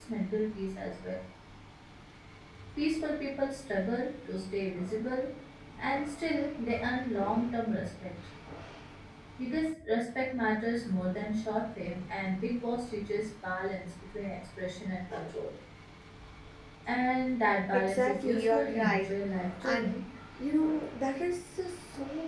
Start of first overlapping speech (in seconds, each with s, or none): 17.7 s